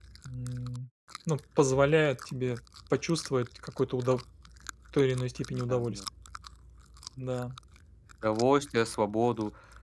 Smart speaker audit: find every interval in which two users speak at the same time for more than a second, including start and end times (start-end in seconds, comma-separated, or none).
none